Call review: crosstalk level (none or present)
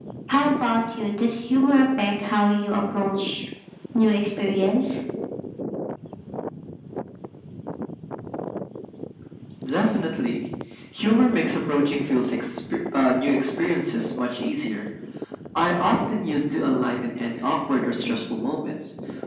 none